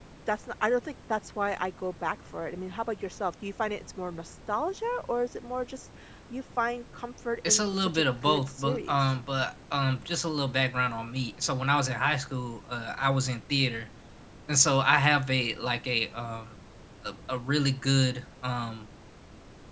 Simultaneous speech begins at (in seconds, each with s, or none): 7.4 s